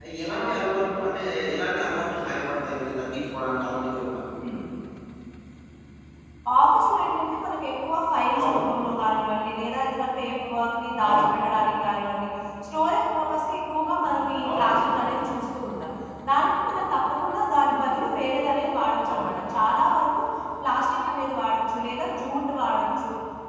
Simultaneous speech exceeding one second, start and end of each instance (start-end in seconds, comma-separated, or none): none